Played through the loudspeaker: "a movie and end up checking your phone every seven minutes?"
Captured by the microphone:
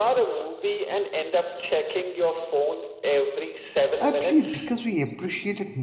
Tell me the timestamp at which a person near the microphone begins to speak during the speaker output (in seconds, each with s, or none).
4.0 s